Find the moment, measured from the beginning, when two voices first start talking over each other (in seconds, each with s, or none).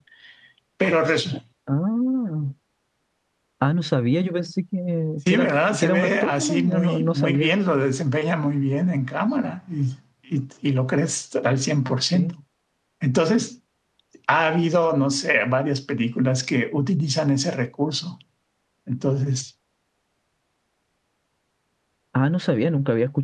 5.3 s